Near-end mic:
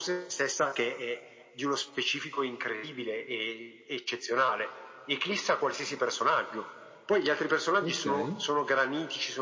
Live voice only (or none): Okay.